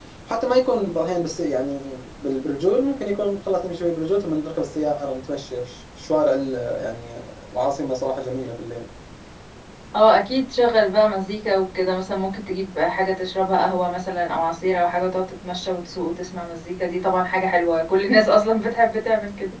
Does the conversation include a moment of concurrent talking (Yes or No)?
No